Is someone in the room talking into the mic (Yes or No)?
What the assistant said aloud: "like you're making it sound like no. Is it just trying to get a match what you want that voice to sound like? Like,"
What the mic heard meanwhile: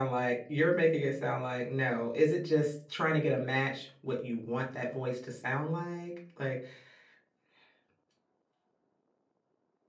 No